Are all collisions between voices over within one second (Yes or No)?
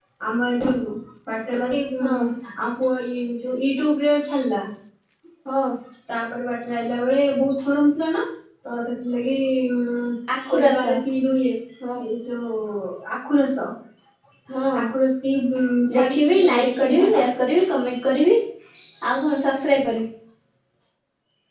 No